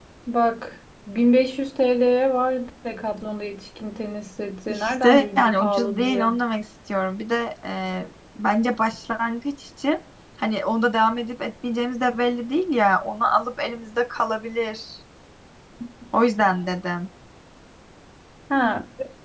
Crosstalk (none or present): present